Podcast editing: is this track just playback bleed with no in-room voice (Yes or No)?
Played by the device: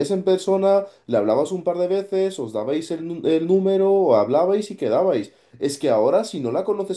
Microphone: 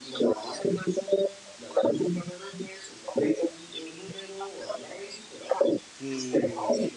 No